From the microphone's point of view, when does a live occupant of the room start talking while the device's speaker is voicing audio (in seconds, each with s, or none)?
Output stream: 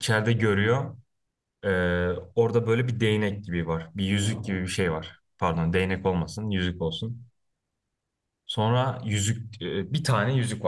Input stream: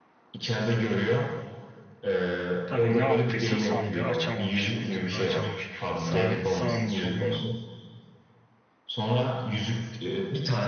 2.6 s